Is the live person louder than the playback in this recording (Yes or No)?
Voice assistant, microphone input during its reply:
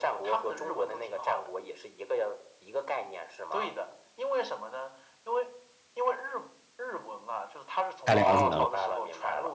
Yes